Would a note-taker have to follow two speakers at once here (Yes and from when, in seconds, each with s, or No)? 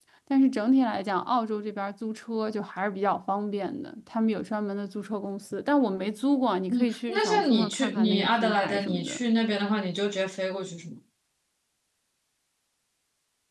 Yes, from 6.7 s